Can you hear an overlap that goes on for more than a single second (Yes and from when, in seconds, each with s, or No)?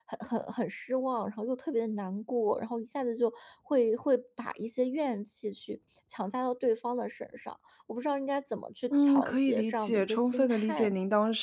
Yes, from 8.9 s